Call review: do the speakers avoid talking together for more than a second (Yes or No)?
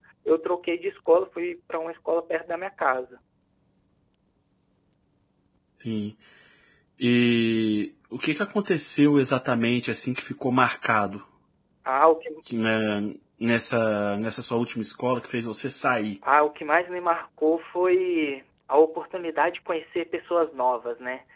Yes